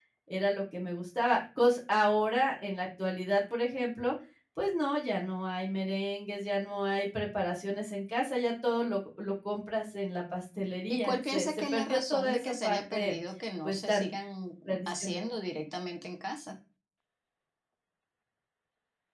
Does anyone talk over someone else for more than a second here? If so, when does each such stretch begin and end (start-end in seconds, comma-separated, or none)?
10.9-13.2